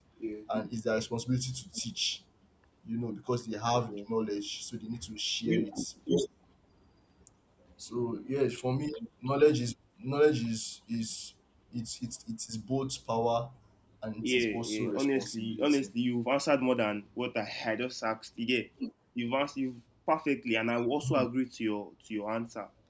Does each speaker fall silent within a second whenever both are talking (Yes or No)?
No